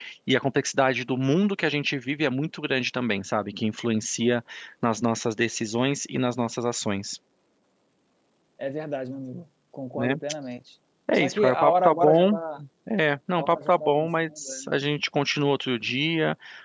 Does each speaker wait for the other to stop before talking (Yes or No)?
No